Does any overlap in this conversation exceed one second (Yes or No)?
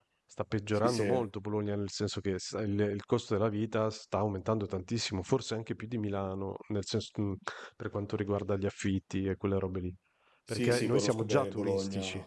Yes